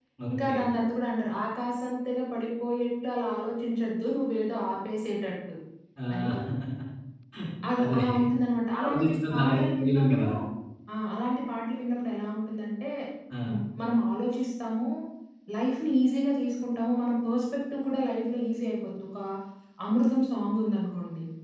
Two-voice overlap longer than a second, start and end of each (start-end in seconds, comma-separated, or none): 8.8-10.2